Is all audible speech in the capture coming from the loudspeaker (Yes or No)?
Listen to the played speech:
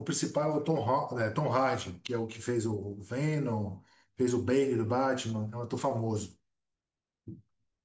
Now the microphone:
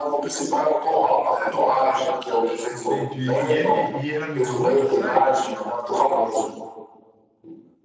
No